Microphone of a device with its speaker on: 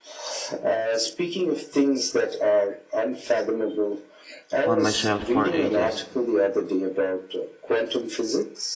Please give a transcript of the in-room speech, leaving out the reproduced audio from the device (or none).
on my shelf for ages.